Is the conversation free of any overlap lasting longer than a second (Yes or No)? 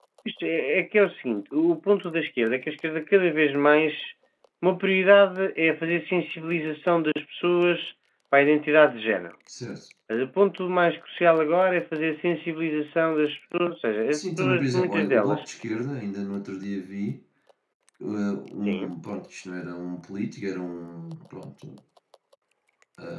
No